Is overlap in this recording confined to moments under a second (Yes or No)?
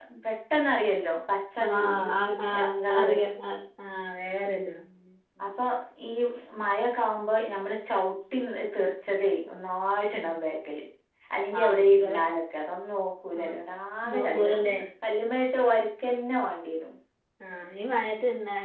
No